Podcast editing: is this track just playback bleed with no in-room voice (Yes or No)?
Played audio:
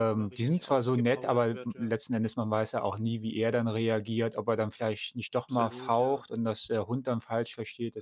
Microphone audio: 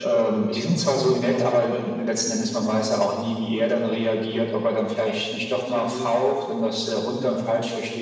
Yes